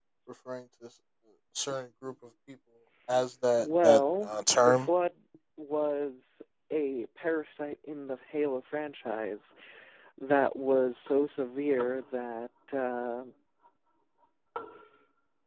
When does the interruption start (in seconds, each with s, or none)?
3.6 s